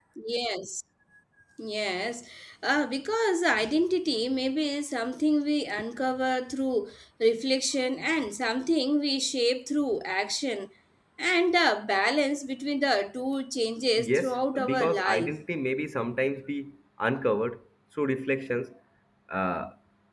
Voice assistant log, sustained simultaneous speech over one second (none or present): present